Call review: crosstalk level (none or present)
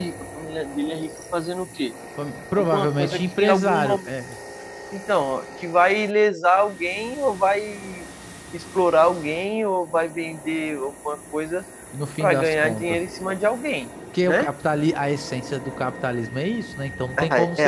present